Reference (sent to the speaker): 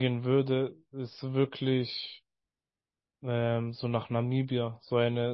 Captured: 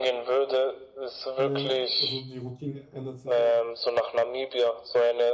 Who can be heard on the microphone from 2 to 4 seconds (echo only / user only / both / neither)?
both